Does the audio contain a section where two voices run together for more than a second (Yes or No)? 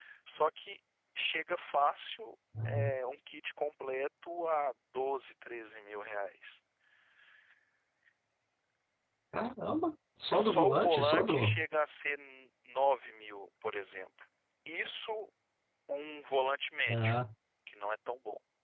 Yes